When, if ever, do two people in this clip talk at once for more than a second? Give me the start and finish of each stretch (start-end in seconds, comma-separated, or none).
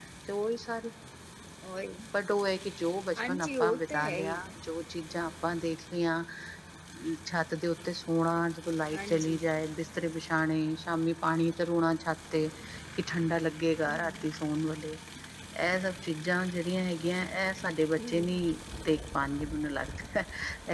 3.2-4.4